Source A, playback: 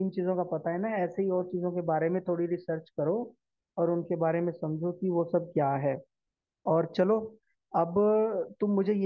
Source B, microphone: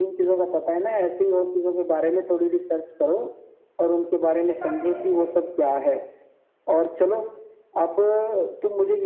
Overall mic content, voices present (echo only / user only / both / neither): both